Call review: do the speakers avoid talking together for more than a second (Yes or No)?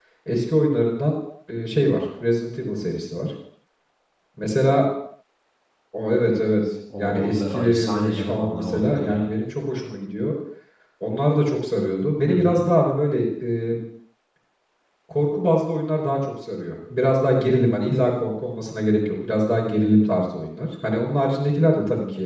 No